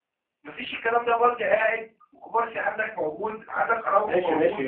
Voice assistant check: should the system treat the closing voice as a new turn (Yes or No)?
Yes